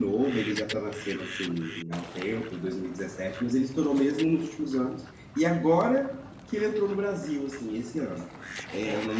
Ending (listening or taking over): listening